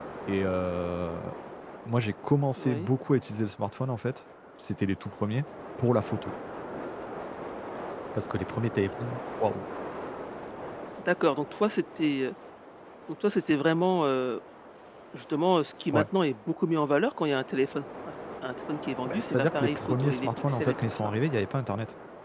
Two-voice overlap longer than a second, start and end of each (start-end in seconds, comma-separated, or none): 19.1-21.1